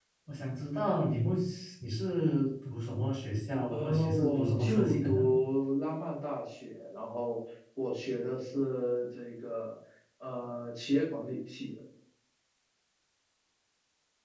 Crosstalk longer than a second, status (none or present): present